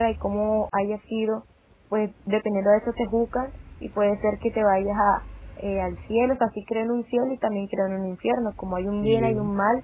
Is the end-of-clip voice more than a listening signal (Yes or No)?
No